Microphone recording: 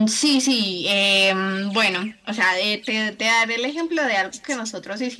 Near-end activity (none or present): none